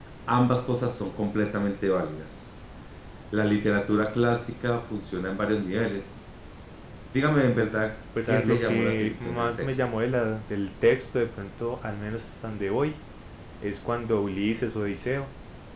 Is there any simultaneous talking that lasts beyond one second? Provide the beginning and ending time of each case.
8.2-9.8

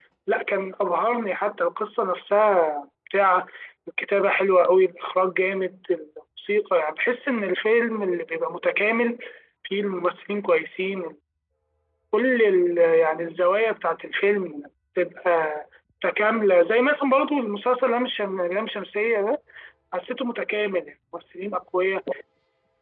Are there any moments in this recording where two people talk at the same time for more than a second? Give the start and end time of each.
none

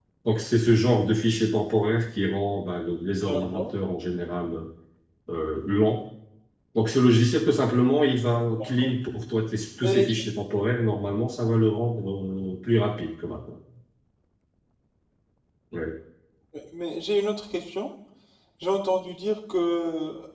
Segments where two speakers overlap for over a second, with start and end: none

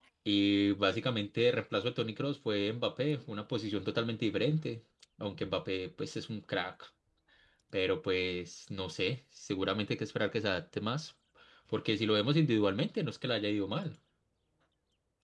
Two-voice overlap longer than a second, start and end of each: none

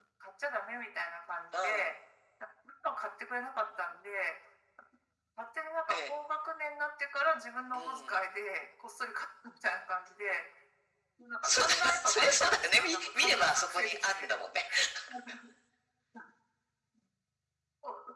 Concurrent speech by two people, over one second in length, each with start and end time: 11.4-14.4

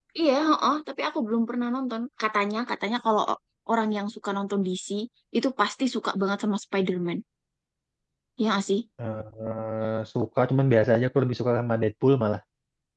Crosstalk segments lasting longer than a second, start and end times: none

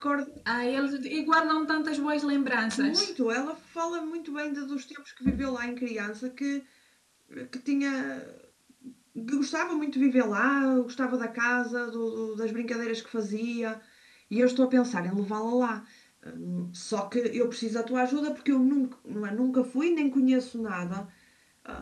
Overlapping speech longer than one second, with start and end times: none

